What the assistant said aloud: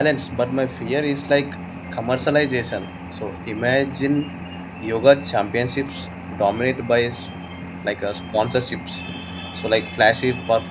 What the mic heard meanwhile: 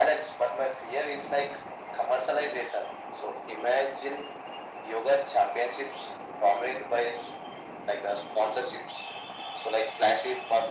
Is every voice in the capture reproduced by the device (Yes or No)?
Yes